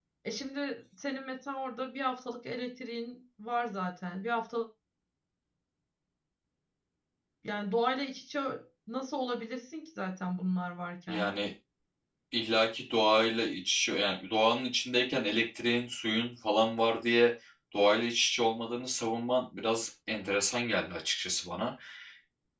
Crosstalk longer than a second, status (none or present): none